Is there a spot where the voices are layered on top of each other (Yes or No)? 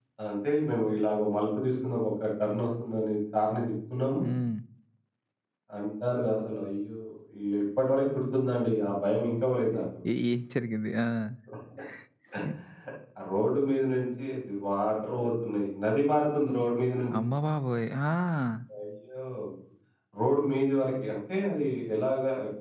No